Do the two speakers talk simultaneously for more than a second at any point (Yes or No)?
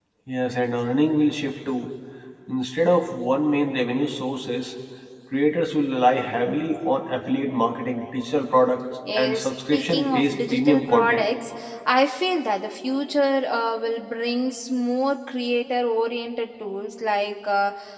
Yes